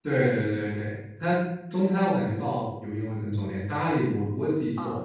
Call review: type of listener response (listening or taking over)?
listening